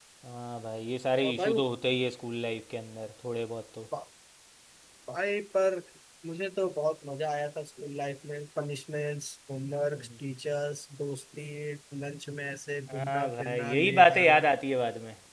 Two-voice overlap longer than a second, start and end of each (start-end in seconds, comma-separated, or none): 12.9-14.4